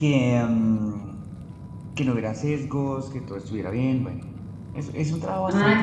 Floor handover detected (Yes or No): Yes